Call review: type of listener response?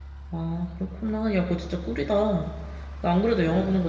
listening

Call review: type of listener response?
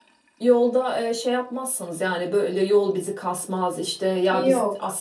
listening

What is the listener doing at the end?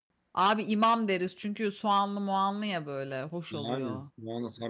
taking over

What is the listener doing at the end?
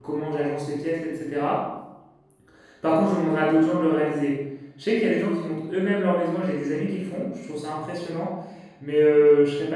listening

